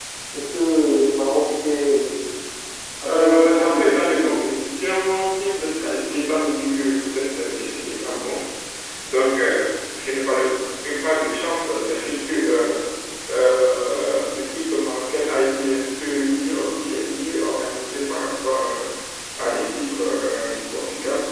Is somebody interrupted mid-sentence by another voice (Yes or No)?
Yes